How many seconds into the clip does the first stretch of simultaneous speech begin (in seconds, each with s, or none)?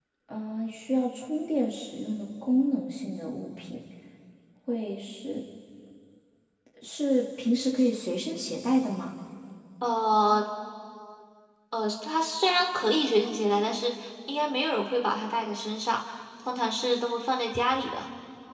none